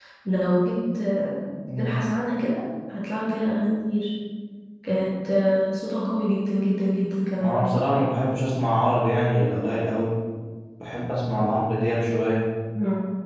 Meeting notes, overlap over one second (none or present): none